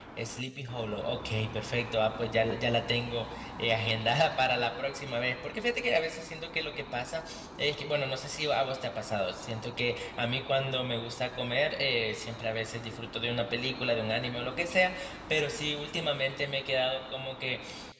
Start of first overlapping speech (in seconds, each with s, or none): none